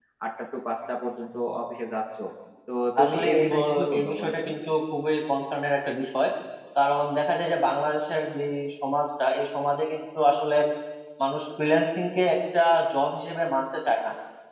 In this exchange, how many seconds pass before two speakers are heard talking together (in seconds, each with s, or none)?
3.0 s